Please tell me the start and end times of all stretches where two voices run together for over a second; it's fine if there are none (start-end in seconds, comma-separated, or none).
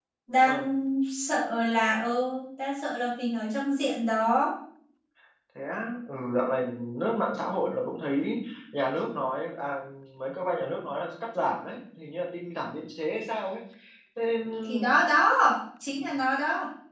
none